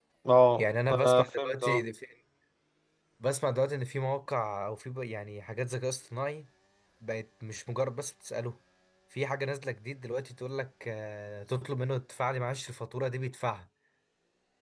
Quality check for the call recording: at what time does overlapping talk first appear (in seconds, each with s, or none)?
0.6 s